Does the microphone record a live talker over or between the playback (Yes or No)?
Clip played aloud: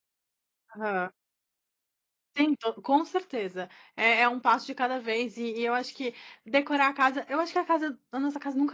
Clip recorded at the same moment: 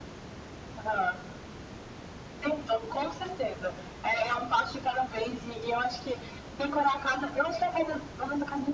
No